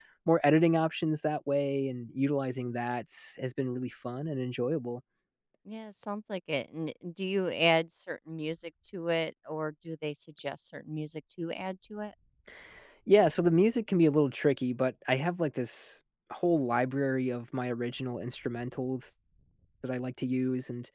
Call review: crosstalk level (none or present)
none